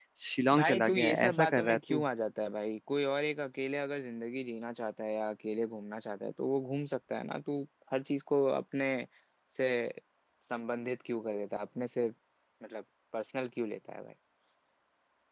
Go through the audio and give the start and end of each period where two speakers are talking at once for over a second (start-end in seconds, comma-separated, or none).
0.5-2.0